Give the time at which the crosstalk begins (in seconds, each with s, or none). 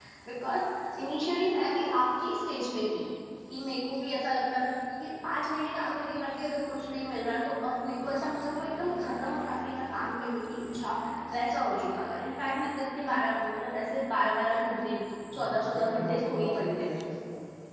15.3 s